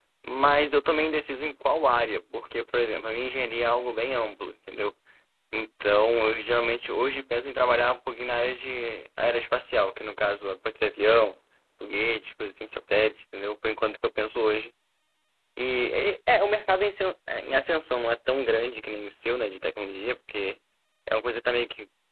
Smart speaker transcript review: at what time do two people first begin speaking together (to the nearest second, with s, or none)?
none